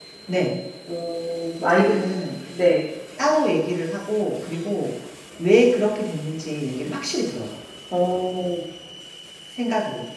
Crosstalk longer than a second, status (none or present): none